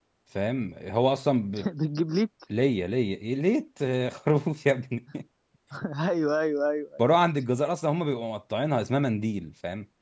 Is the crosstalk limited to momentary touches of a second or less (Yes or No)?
Yes